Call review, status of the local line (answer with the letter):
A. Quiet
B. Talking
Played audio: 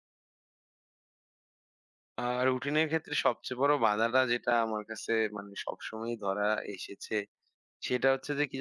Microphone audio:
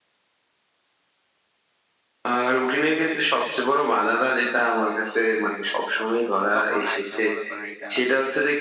B